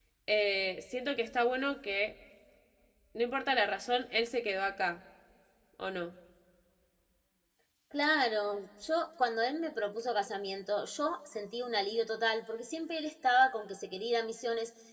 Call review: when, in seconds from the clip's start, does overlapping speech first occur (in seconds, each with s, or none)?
none